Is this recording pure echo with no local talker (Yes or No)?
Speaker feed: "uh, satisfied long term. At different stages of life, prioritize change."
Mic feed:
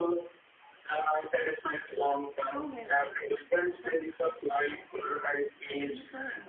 No